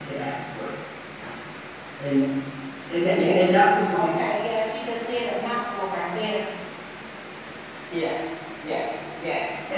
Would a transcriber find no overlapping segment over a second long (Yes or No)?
Yes